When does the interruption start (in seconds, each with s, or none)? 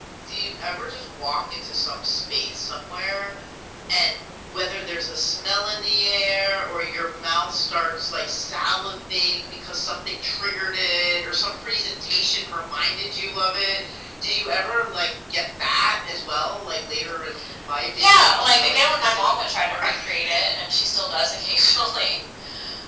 17.9 s